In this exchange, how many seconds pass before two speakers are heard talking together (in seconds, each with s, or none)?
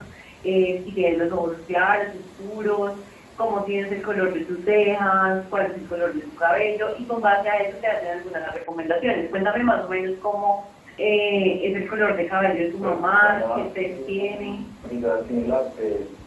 12.8 s